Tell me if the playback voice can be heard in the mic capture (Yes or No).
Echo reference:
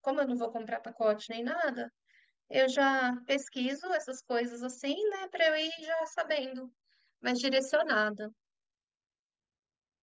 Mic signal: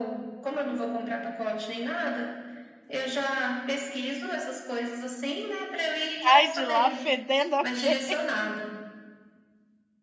Yes